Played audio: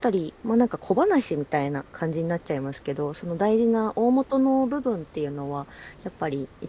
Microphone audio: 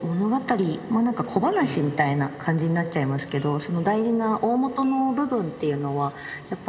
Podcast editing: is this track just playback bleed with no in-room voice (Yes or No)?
No